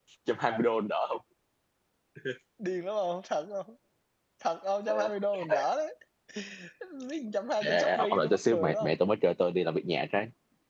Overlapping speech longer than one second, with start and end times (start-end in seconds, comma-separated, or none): 7.7-9.0